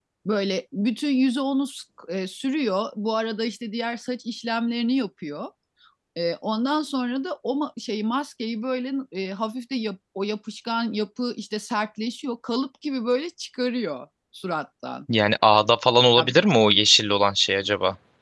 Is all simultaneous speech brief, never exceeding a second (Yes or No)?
Yes